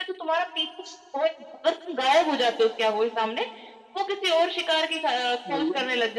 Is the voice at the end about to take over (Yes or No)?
No